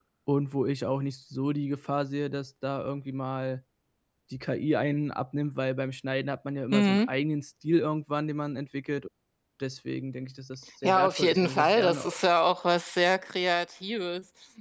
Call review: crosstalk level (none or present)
present